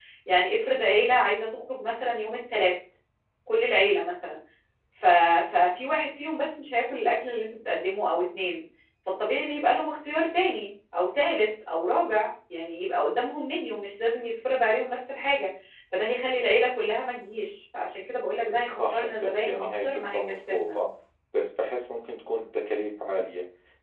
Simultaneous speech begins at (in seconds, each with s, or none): 18.8 s